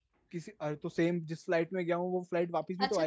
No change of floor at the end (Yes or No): No